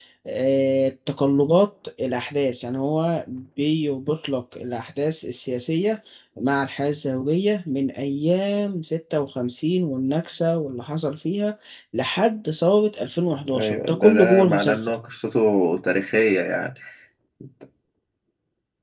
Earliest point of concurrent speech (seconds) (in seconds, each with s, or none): 13.5 s